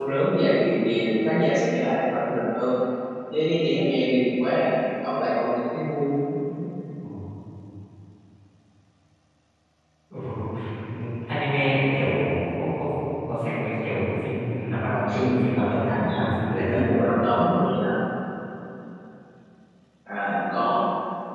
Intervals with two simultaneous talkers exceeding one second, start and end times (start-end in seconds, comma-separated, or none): 14.8-16.9